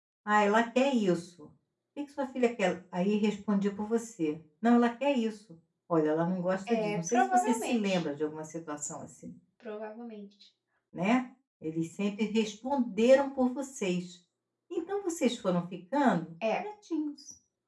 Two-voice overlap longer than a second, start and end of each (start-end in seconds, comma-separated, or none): 6.7-8.0